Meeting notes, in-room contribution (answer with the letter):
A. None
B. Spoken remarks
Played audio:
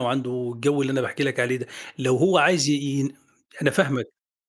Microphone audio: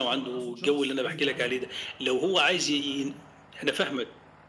B